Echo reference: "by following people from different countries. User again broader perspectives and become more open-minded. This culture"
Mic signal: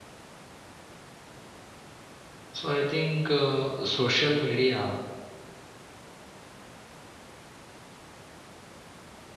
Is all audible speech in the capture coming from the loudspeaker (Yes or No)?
No